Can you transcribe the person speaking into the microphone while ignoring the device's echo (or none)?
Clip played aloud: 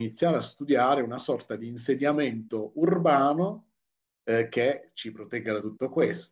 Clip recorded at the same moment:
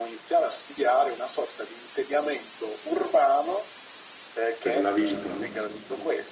per la vita, no? Mhm.